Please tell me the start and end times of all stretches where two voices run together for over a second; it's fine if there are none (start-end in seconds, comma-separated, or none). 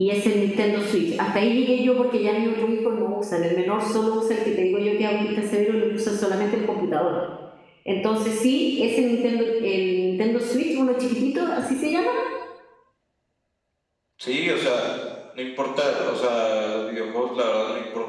none